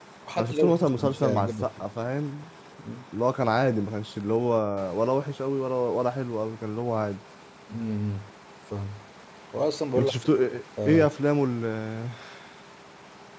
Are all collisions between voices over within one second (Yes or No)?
No